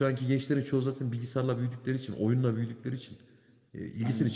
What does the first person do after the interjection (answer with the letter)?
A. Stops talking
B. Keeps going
B